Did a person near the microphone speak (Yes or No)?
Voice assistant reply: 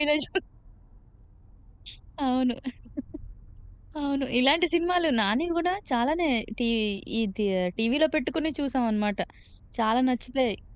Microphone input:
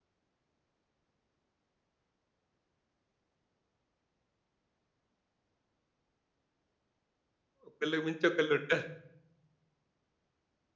Yes